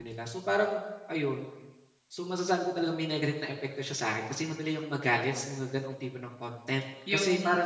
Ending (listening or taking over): taking over